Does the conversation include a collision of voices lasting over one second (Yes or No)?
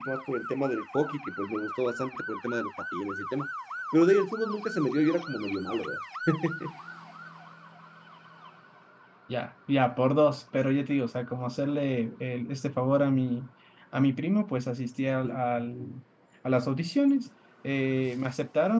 No